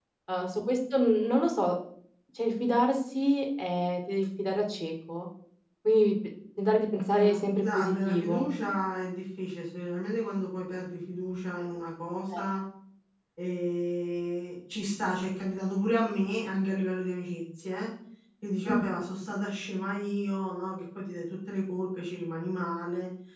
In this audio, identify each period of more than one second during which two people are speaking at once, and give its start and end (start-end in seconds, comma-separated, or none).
7.1-8.5